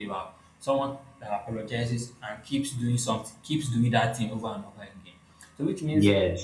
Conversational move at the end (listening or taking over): listening